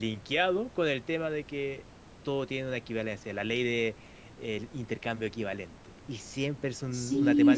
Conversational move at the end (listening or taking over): taking over